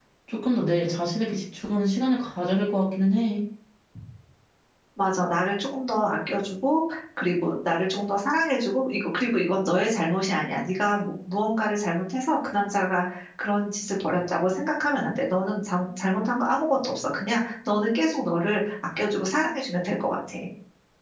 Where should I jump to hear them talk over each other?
none

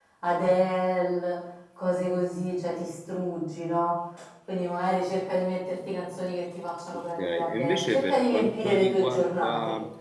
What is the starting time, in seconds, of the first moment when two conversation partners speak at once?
6.9 s

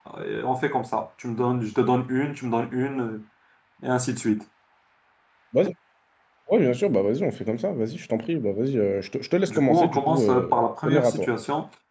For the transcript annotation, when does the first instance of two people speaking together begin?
9.5 s

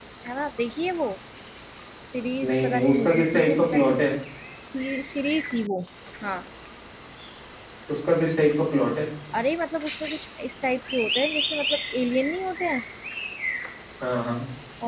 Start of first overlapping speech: 2.5 s

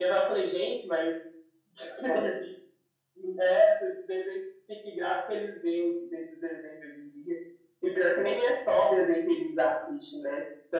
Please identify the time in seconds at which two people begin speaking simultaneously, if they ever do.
none

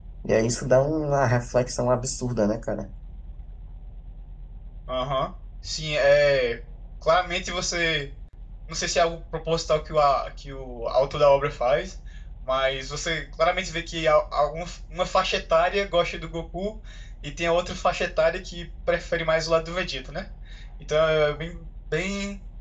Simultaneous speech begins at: none

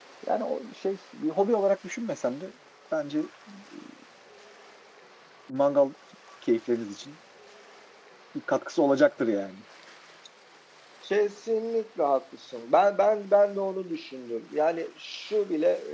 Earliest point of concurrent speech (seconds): none

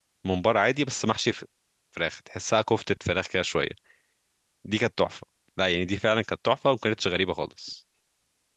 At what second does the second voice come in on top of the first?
none

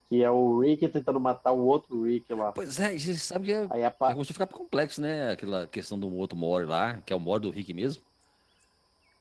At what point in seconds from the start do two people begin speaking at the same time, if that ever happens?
none

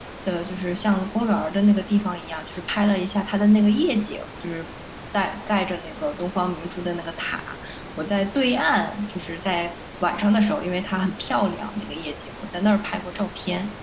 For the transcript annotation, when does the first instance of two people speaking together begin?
none

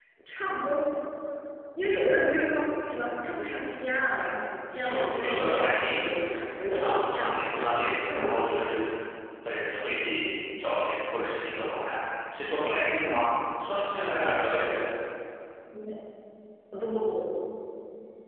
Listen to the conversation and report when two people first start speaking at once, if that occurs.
4.7 s

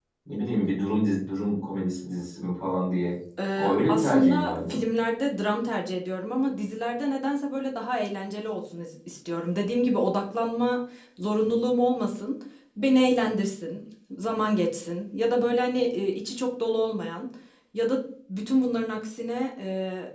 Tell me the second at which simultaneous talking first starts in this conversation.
3.6 s

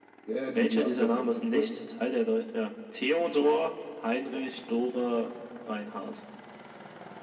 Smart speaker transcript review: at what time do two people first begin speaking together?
0.5 s

